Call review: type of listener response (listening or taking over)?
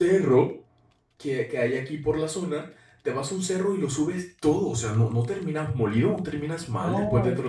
taking over